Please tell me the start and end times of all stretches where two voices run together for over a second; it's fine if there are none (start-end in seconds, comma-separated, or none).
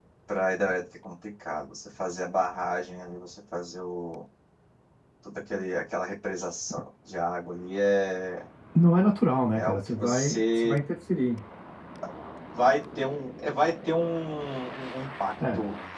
9.5-10.8